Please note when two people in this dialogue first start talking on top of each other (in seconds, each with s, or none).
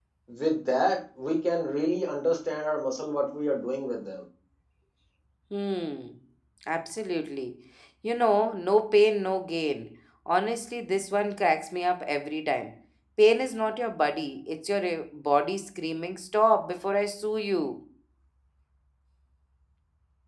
none